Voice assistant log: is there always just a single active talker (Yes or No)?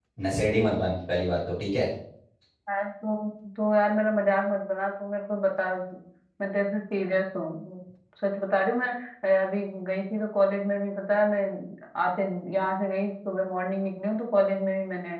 Yes